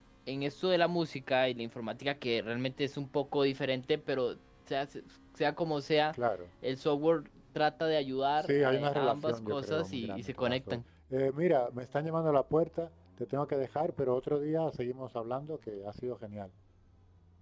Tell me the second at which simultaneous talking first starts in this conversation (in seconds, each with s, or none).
8.4 s